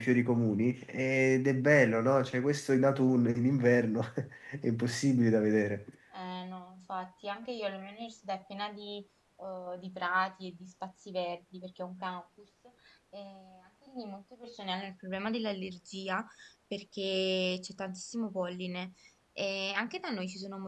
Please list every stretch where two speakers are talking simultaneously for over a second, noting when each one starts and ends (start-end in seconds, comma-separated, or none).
none